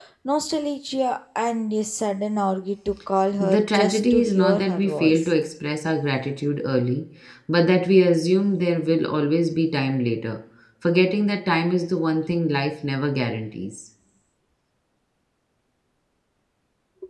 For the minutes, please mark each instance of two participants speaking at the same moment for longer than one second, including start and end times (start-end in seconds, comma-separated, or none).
3.4-5.3